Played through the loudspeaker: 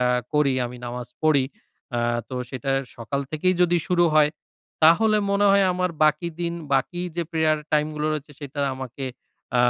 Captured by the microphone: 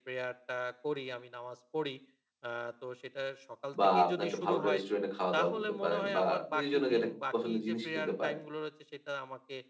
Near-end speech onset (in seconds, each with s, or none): 3.8 s